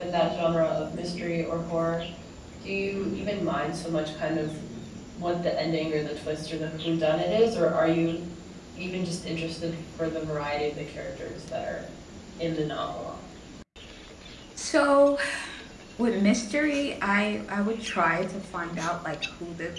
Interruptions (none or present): none